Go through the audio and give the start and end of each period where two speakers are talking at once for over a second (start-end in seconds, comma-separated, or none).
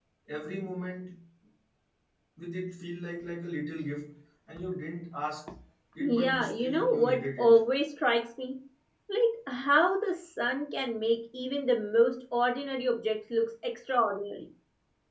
6.0-7.6